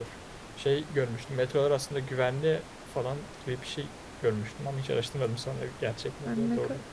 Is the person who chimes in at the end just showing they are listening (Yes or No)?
No